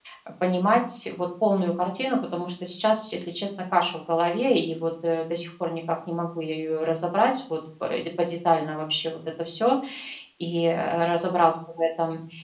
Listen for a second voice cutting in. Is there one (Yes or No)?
No